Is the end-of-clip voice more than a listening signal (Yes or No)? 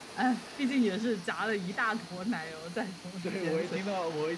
Yes